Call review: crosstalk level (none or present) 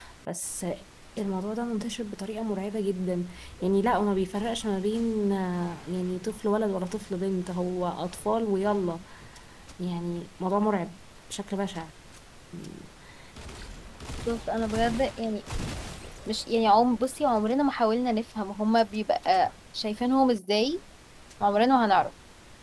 none